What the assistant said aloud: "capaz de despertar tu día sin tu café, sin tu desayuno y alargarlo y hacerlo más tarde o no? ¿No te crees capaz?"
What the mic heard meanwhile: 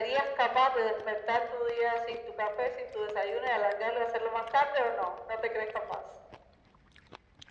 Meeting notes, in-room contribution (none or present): none